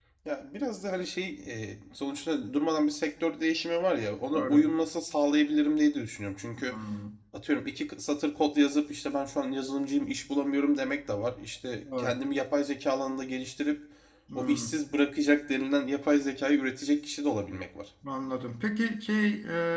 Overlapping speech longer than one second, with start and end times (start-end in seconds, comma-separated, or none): none